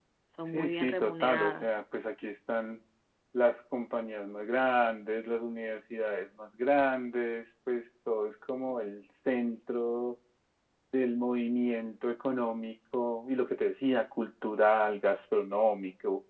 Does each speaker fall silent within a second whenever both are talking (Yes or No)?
No